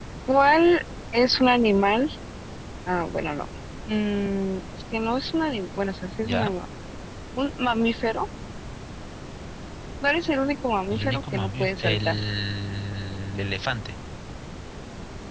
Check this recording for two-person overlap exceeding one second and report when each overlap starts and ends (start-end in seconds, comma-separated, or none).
10.9-12.2